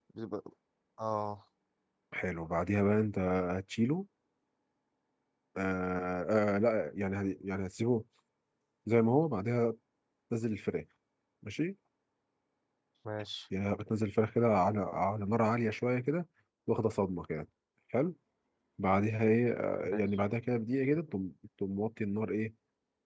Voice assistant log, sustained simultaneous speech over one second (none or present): none